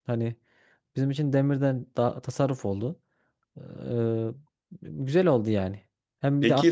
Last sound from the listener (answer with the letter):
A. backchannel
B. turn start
A